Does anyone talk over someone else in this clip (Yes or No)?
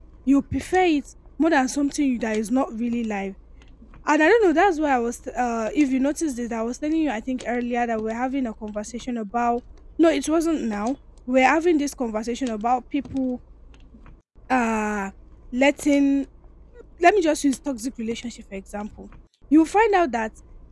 No